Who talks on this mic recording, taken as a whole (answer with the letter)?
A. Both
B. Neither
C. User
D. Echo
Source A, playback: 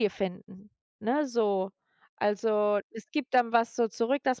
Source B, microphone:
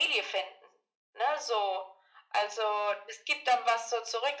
D